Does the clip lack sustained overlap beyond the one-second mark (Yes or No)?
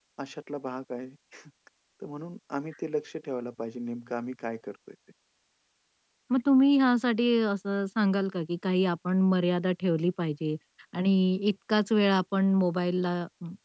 Yes